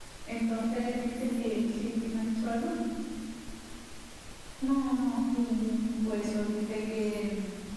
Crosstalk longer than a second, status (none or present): none